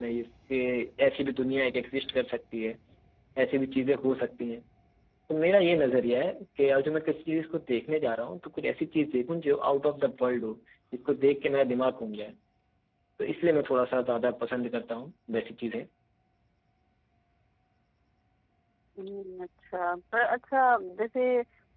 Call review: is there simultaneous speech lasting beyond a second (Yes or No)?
No